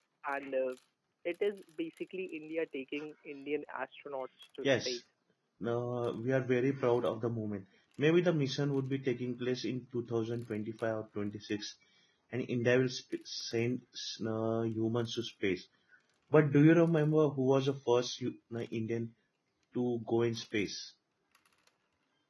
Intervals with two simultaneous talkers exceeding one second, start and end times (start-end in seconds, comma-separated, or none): none